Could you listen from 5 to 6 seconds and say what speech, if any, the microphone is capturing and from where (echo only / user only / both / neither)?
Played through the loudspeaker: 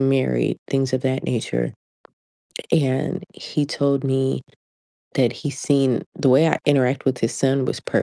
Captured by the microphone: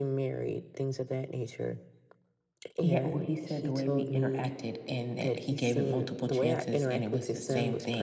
both